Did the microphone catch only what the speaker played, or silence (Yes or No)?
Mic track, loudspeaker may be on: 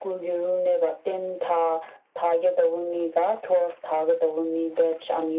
Yes